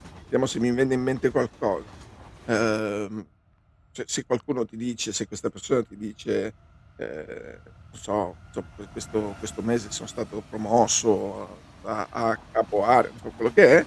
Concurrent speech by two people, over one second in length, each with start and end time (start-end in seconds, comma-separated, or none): none